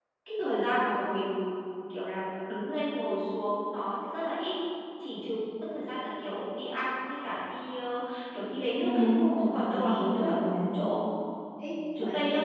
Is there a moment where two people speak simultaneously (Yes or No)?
Yes